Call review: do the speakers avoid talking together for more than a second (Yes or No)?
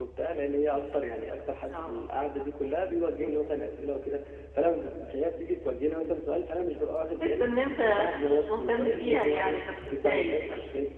No